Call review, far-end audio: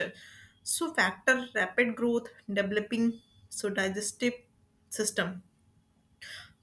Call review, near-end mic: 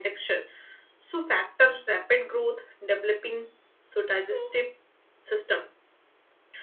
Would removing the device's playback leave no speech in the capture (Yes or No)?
No